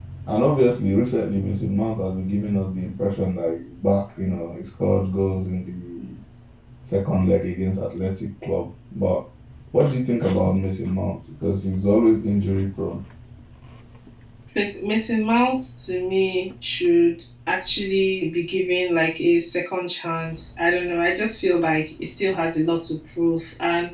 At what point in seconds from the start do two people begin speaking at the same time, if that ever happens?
none

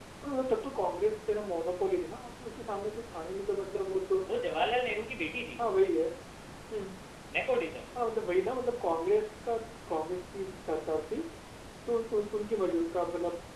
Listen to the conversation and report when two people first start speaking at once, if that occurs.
none

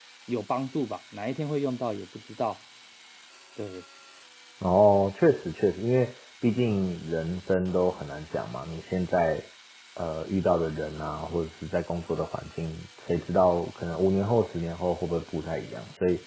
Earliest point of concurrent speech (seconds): none

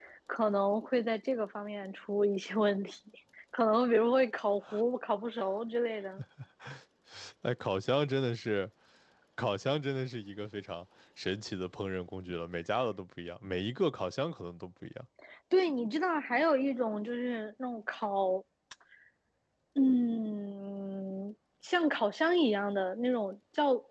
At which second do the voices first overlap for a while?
none

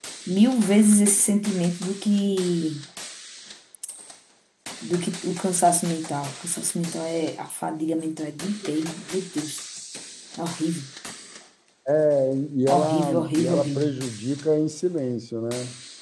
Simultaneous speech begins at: 12.7 s

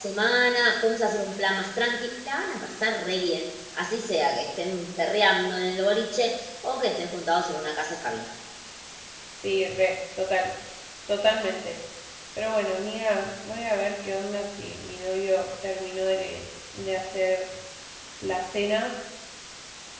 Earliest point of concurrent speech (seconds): none

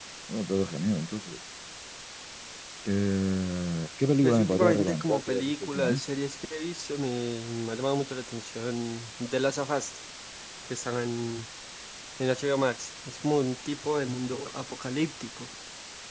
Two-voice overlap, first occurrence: 4.2 s

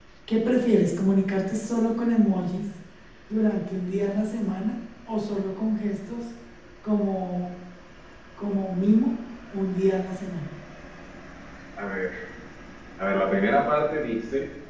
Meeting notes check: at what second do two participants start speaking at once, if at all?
none

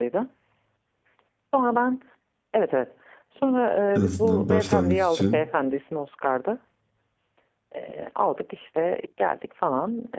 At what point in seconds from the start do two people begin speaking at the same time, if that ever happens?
4.0 s

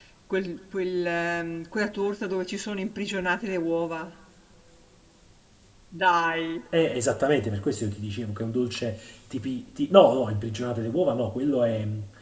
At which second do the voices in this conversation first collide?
none

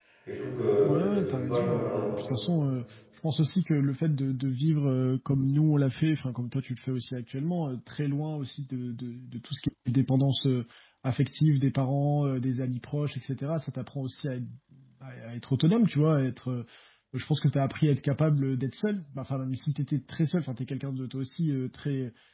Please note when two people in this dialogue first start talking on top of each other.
0.8 s

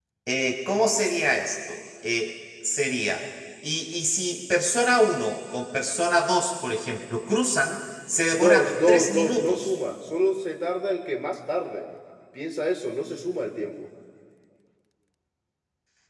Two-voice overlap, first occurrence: 8.3 s

